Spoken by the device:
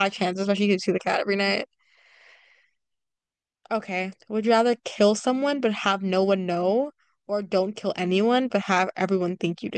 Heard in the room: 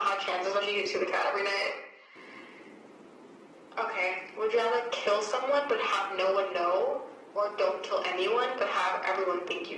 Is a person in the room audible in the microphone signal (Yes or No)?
No